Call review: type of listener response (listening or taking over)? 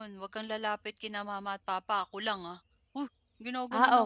taking over